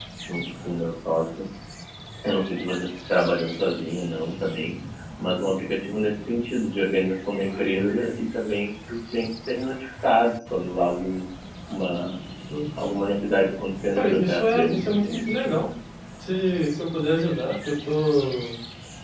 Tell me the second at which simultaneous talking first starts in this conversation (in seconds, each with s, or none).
13.9 s